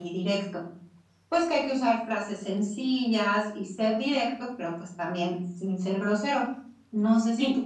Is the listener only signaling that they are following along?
Yes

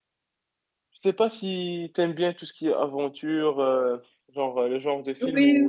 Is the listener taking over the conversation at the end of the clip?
No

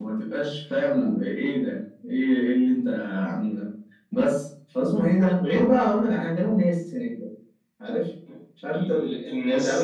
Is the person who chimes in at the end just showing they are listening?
No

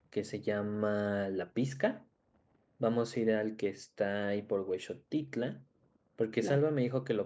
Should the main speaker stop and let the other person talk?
No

